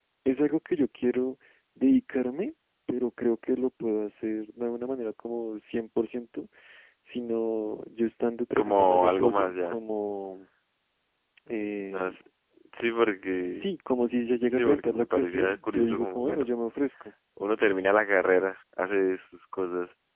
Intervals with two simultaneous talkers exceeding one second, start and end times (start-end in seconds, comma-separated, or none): 8.6-9.8, 14.5-16.5